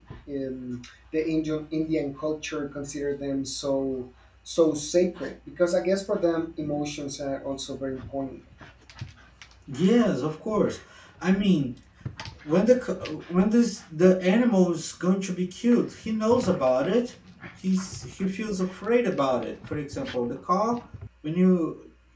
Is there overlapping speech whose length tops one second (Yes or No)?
No